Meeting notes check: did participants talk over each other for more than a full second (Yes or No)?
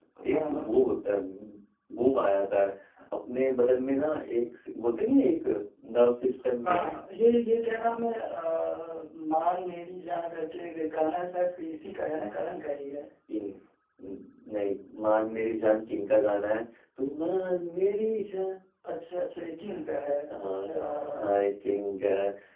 No